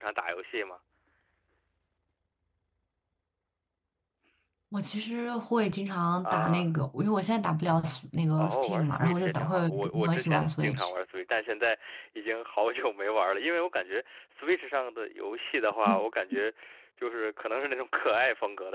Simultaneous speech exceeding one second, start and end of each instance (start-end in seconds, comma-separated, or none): 8.4-10.9